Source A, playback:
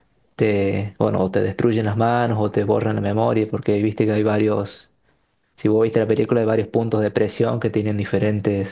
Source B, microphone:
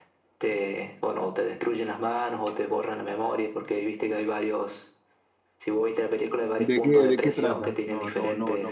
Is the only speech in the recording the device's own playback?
No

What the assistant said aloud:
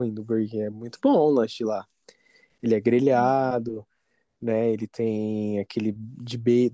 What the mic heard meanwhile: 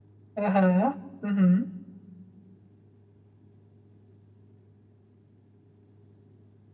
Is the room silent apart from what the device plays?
No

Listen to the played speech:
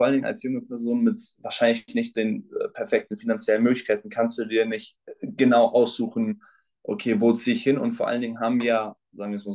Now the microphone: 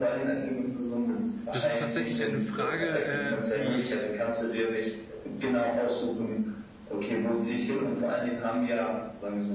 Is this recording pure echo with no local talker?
No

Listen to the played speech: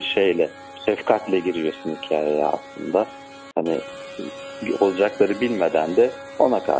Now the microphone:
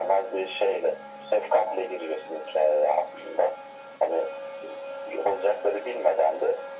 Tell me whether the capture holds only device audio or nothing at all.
Yes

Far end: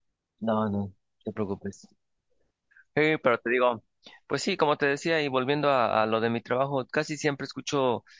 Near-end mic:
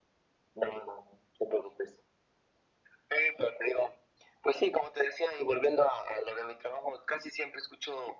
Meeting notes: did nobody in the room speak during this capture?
Yes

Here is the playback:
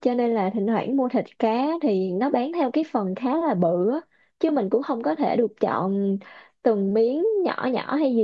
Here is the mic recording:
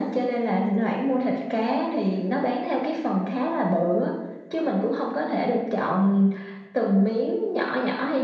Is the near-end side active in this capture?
No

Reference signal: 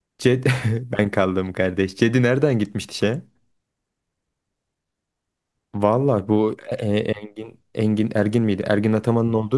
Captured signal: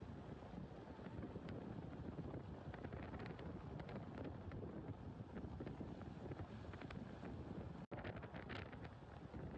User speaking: No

